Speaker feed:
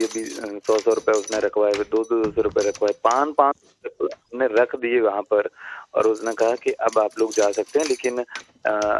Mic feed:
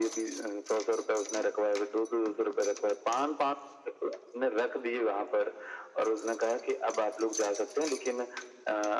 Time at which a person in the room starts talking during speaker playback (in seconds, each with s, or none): none